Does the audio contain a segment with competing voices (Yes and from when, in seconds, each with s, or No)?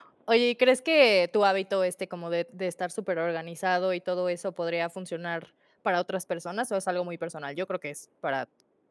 No